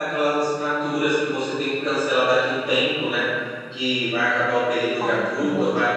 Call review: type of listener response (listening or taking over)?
listening